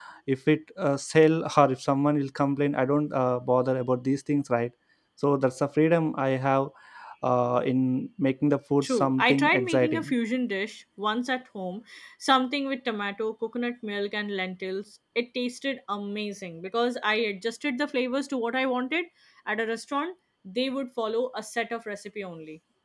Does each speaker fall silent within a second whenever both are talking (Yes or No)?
No